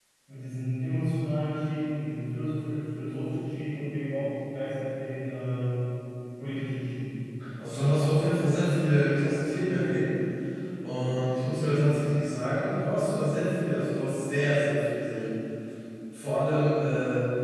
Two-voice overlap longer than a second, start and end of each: none

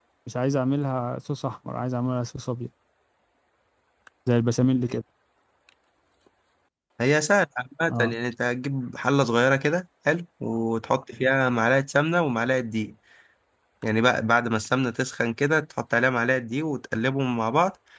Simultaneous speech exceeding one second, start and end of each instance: none

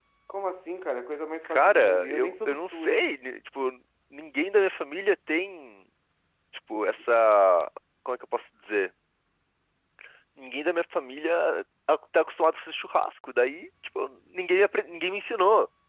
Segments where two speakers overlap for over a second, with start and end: 1.4-3.0

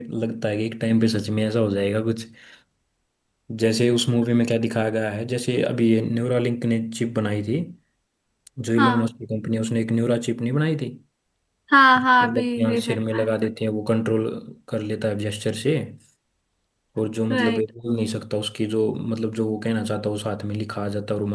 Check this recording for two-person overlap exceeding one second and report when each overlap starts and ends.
12.0-13.3

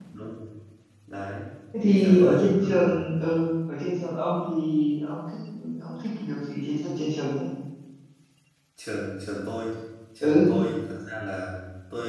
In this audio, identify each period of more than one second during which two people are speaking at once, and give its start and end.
1.8-3.1

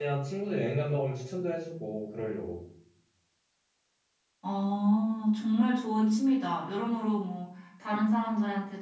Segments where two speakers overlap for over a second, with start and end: none

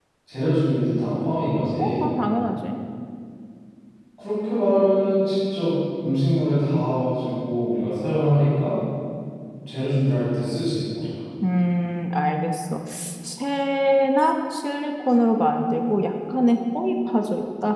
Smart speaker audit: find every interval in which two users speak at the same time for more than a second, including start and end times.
none

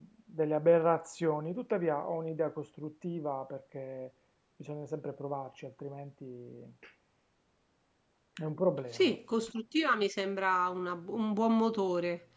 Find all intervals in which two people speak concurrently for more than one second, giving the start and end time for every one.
none

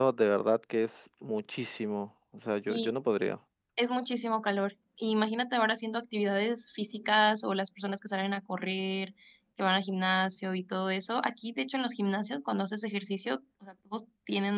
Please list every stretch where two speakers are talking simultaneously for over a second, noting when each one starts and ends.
none

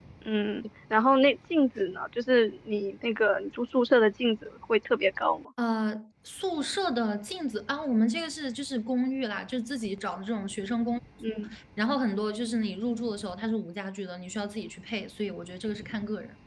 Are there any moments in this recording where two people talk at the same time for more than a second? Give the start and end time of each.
none

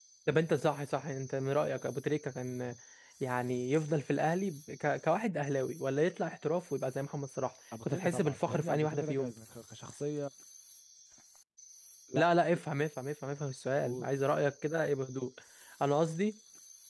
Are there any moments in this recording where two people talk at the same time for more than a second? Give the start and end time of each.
7.8-9.3

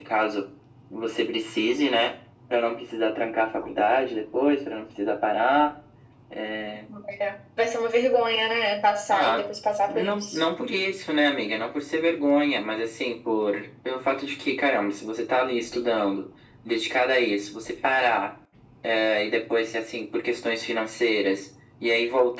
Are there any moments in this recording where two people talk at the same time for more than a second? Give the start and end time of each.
none

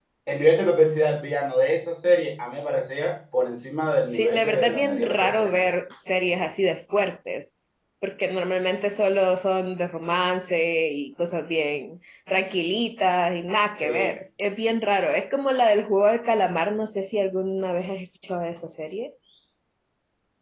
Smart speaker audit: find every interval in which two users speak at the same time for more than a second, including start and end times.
4.1-5.7

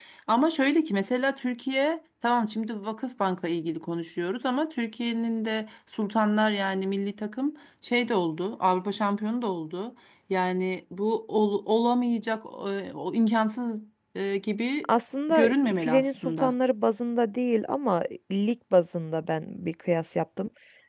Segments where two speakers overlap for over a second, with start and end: 15.3-16.5

